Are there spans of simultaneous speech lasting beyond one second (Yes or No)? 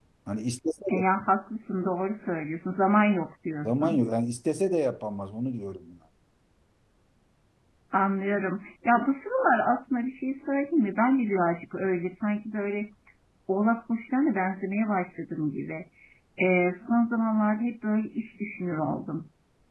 No